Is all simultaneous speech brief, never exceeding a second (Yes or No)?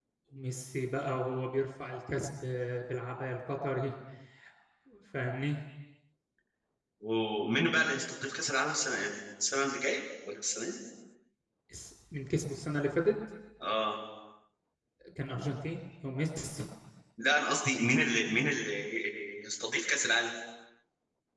Yes